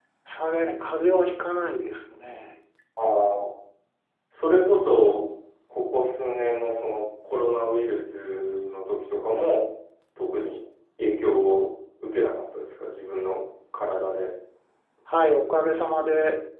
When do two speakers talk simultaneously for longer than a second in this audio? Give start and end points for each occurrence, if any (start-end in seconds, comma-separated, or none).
none